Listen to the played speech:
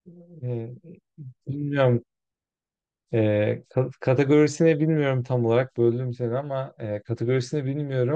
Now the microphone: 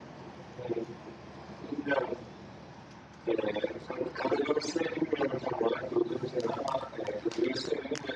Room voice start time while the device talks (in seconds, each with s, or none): none